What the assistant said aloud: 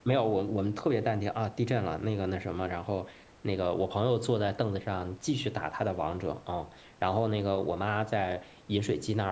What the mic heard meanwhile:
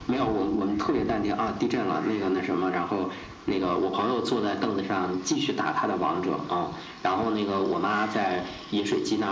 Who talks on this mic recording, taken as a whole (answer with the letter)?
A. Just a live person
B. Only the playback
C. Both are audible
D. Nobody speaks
B